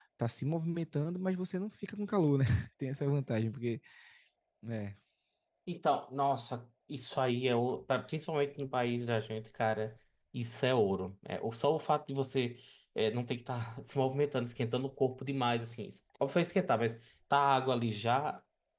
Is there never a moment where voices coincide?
Yes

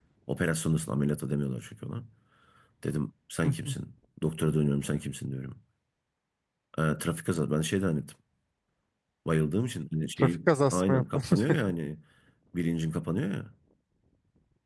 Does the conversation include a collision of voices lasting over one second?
Yes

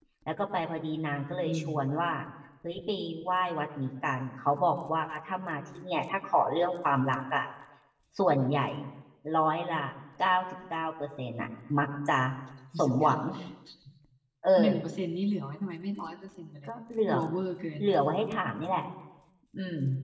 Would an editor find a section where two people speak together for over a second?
No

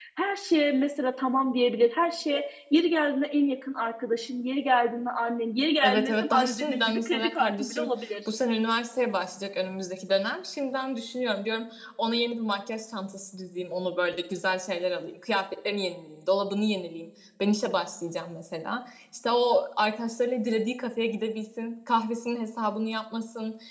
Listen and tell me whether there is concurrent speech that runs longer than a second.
Yes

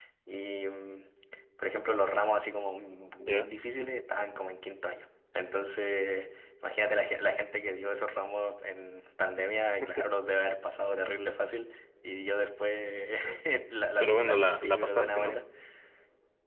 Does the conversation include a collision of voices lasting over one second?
Yes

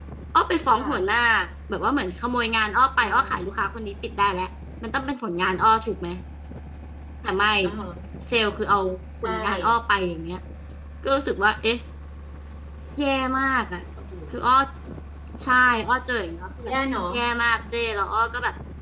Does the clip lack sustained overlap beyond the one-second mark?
Yes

